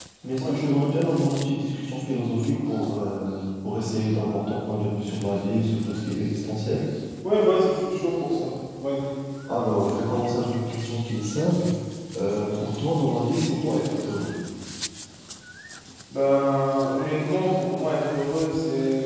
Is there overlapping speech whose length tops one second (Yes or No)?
No